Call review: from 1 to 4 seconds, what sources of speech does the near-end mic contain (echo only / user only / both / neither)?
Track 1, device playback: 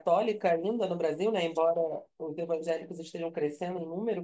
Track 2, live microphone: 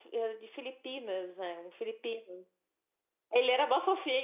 user only